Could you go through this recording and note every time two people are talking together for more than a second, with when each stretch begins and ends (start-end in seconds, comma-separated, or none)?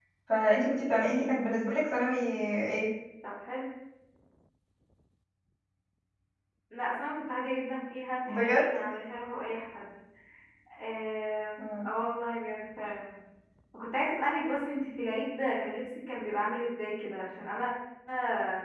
none